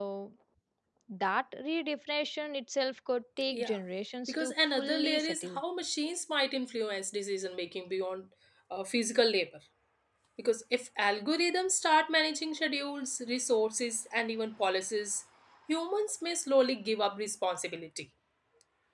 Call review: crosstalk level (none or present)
present